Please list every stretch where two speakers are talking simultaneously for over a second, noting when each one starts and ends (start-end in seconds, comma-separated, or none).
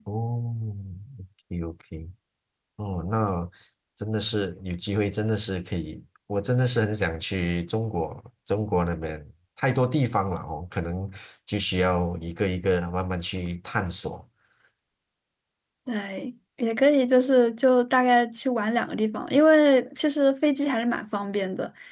none